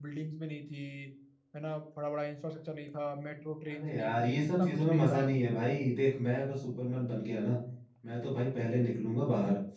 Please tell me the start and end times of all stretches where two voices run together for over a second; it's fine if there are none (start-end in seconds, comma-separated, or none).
3.7-5.3